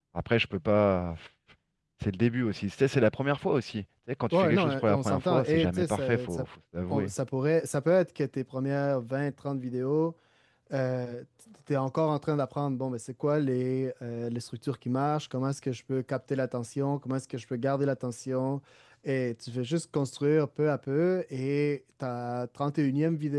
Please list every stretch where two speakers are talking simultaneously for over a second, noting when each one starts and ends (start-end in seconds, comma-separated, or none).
4.3-6.5